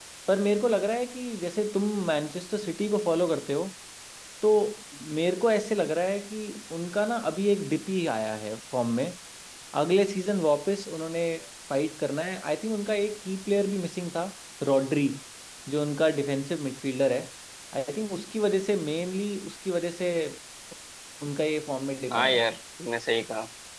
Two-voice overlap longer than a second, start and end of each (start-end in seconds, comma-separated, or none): none